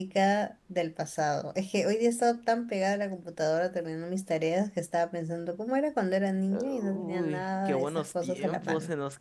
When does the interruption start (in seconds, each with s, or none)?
6.5 s